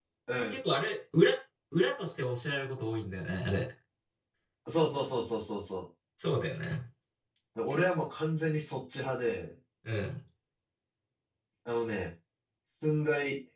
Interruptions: none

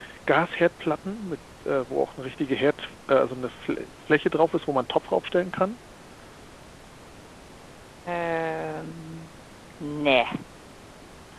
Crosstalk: none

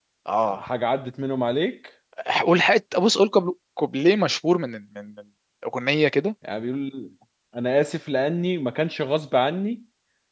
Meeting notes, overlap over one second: none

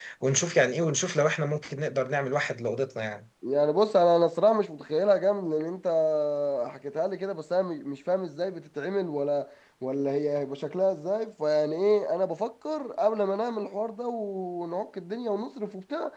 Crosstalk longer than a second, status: none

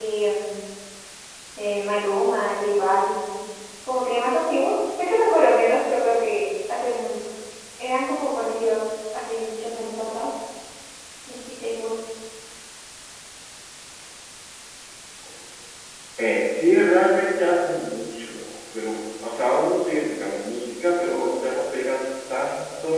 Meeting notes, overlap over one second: none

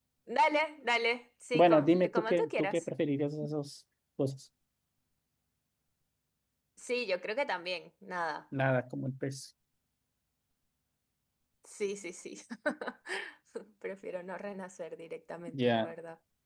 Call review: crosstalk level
present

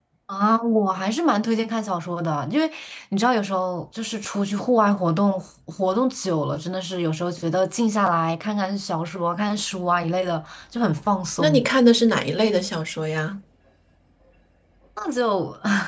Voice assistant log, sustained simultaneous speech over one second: none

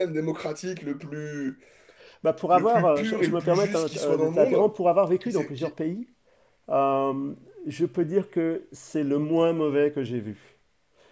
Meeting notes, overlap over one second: present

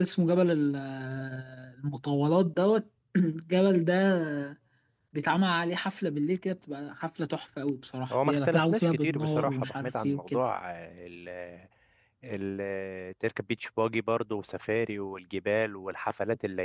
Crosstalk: present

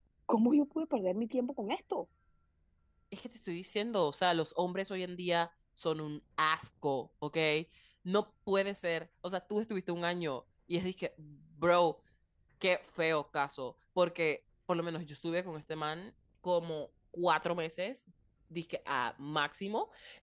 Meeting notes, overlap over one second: none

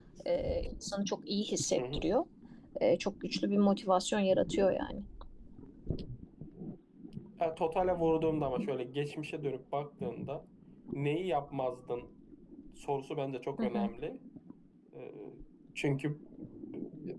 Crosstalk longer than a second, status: none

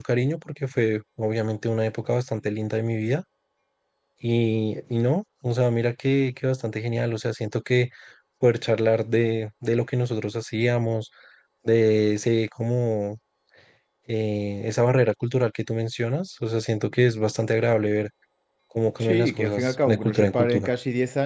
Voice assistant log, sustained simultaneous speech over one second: present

